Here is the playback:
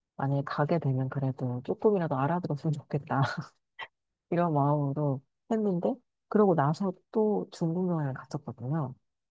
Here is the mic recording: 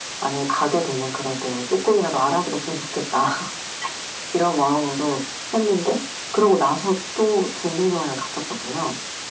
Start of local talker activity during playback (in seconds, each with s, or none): none